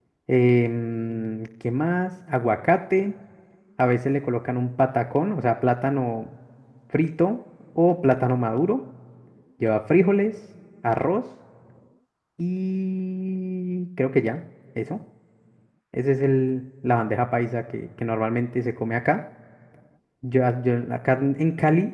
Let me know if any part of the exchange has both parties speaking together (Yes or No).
No